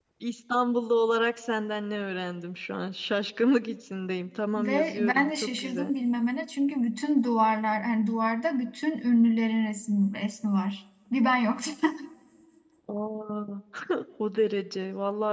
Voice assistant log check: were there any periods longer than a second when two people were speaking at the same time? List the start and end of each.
4.6-5.9

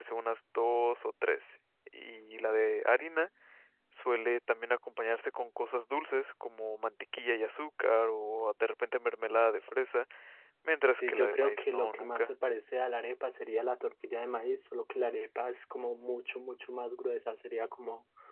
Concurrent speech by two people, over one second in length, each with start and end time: 10.9-12.3

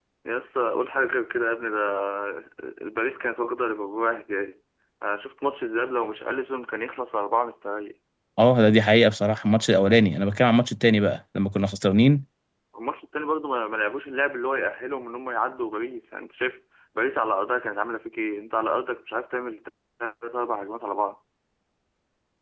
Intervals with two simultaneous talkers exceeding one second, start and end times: none

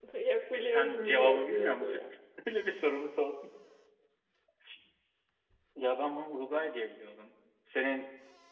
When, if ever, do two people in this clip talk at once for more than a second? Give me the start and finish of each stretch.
0.7-2.0

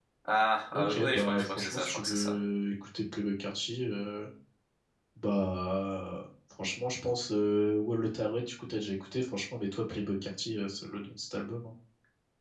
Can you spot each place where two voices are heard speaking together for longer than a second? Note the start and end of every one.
0.7-2.4

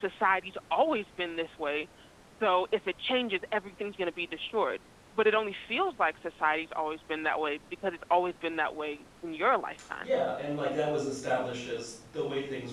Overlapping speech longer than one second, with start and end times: none

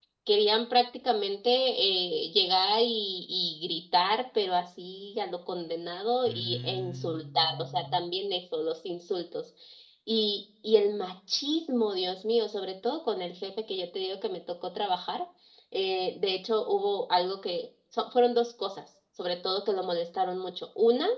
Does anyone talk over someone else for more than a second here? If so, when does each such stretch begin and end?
6.3-8.0

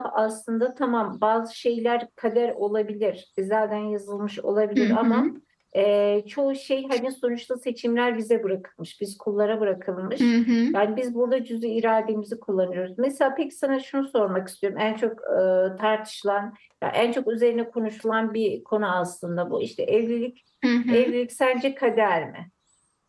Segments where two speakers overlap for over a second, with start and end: none

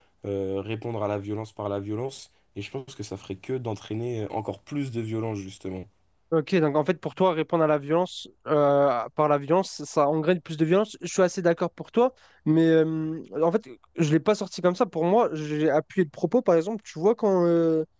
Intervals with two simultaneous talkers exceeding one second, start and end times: none

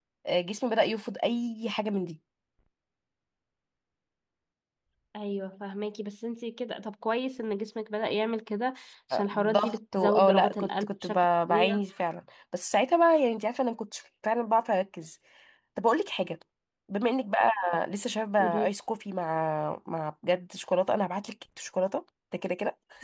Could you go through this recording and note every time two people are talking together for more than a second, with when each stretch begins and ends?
9.1-11.2

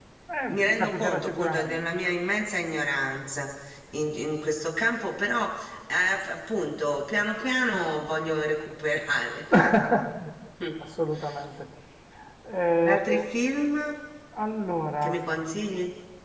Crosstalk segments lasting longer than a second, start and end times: 0.5-1.8

